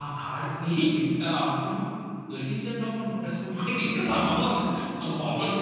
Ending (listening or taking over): taking over